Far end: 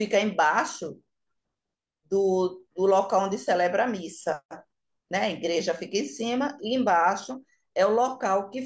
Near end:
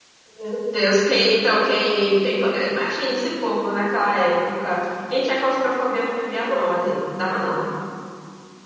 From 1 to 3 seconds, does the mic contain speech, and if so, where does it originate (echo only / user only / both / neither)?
user only